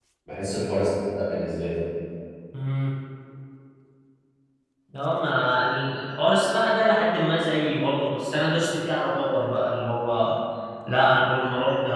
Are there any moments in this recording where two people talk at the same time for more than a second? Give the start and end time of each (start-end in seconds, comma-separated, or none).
none